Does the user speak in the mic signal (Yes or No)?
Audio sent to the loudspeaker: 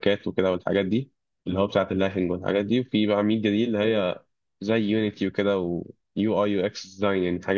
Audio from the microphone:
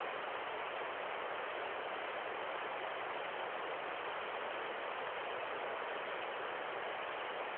No